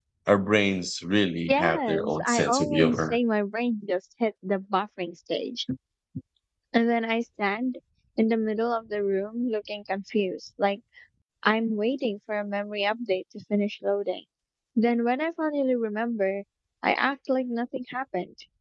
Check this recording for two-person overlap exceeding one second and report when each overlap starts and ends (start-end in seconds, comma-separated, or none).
1.5-3.2